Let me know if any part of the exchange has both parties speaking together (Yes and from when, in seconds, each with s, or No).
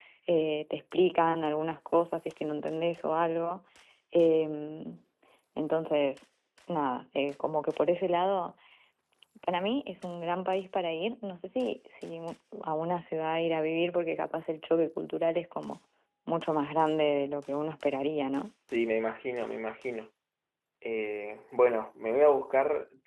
No